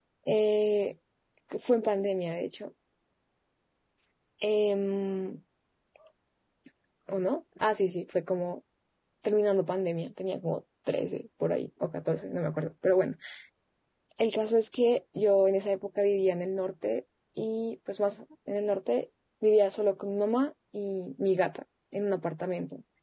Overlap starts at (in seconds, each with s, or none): none